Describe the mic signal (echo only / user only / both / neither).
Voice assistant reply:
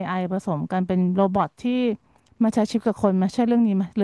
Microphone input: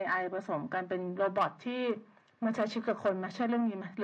echo only